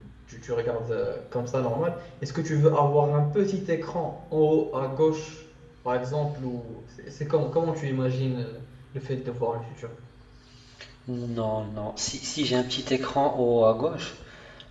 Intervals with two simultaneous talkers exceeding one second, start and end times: none

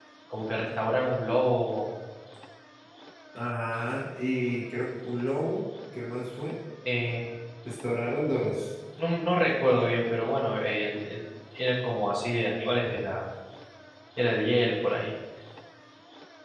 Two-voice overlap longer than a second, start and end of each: none

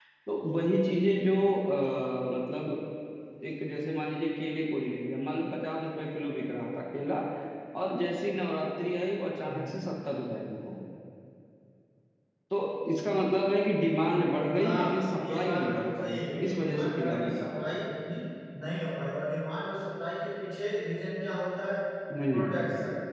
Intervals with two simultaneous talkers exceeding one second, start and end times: 14.6-17.6

